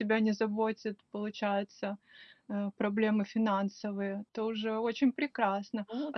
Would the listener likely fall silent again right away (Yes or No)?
Yes